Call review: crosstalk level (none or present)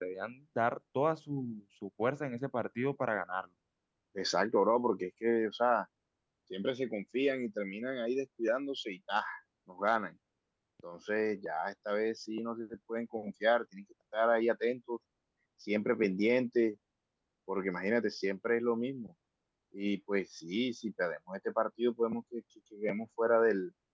none